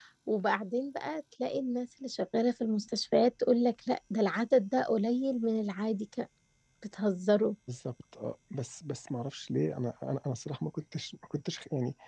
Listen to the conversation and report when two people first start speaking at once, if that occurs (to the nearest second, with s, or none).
none